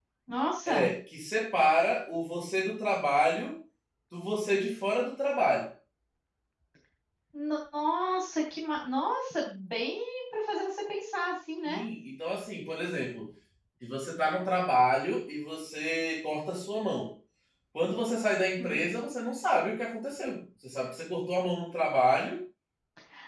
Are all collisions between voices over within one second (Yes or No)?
Yes